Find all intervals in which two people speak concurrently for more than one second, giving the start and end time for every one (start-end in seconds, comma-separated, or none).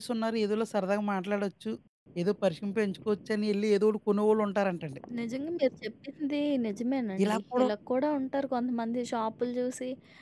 none